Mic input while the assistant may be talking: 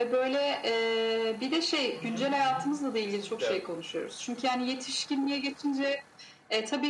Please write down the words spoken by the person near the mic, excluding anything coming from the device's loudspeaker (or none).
Hı hı, hı hı. Kesinlikle,